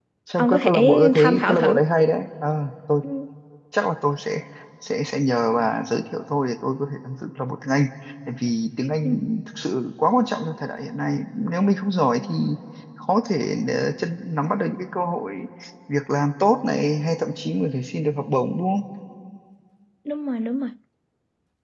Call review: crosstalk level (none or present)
present